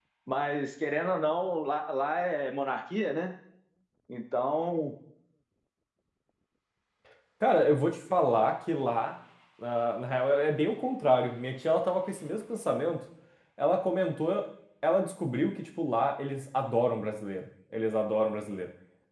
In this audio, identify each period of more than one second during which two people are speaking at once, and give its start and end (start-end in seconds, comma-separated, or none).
none